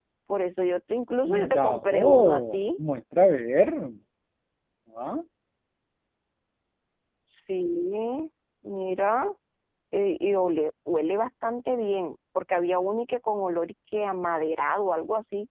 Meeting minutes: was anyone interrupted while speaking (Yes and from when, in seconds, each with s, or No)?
Yes, from 1.2 s